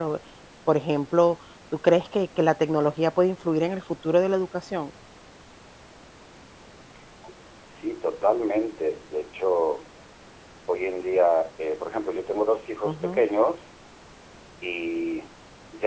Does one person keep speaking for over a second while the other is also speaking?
No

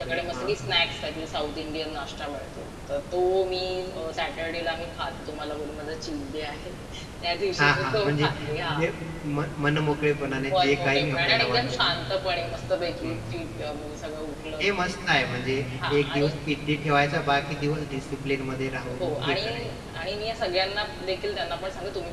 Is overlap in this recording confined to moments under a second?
No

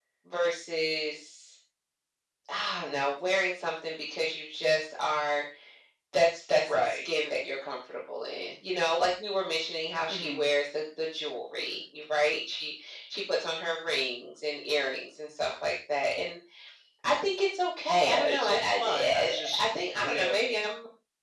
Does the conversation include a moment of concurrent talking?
Yes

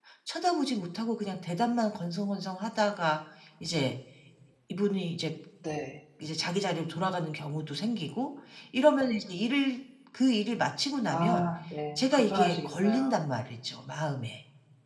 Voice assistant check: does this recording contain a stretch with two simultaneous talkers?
Yes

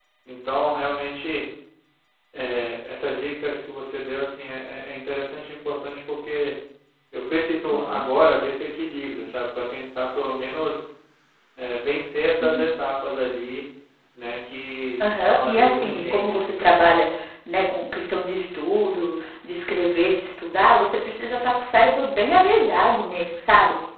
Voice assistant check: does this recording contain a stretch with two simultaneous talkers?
Yes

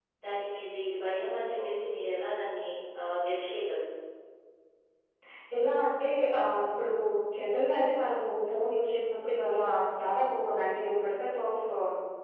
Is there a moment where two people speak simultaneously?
No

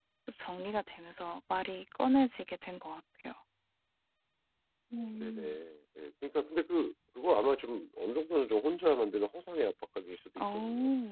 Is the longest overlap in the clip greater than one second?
No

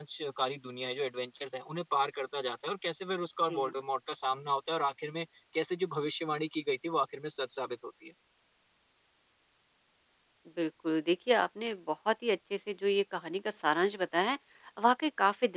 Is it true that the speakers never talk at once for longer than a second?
Yes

